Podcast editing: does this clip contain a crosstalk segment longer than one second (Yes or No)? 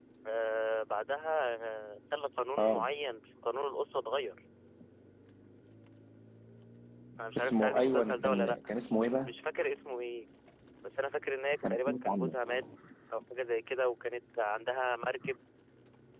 Yes